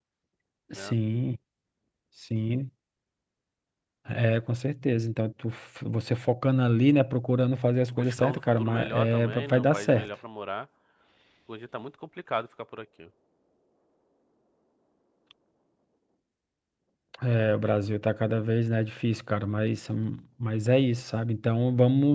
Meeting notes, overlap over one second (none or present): present